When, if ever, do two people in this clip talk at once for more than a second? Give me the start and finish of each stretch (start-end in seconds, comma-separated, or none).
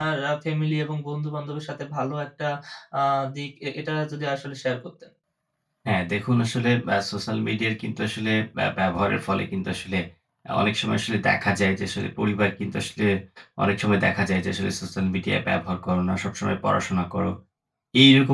none